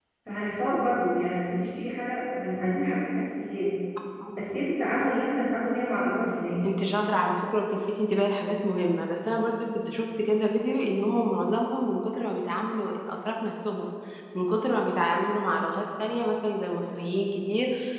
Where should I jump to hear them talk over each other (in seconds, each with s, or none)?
none